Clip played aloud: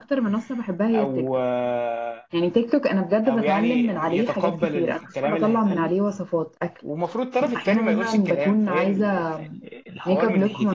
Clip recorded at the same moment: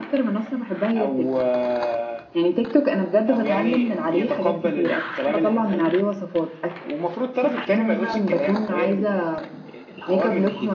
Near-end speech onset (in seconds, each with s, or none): none